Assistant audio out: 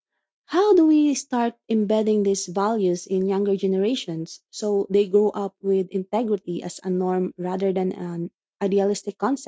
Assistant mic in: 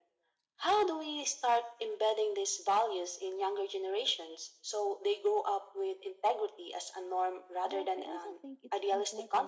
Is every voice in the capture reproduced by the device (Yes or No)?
No